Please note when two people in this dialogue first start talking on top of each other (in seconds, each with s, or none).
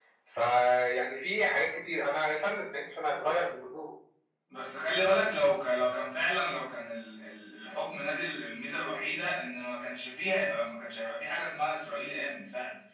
none